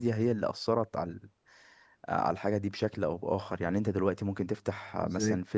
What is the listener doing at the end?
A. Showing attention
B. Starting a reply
A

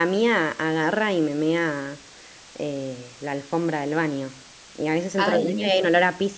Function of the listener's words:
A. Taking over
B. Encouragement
B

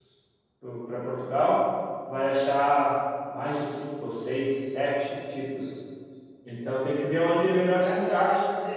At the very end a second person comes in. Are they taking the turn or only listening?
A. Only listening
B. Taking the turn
B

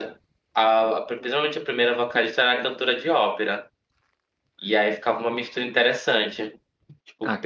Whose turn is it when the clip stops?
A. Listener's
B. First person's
B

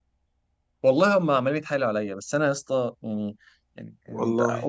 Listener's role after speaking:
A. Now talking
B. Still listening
B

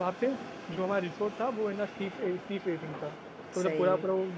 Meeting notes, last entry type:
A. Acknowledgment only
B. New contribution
A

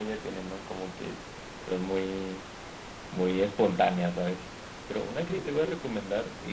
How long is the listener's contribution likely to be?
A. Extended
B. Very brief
B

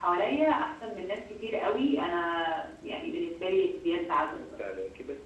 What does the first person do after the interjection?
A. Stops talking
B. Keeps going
A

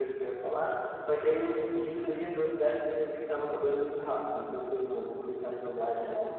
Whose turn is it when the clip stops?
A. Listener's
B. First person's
B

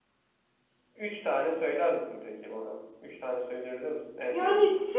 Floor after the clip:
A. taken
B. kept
A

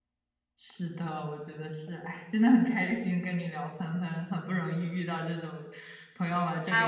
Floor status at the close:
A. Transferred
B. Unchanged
A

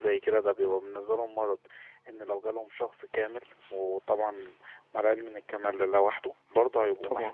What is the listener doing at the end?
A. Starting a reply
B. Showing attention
B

